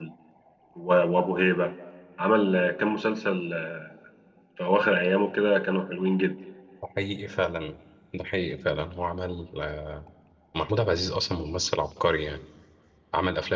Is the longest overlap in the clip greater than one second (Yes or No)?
No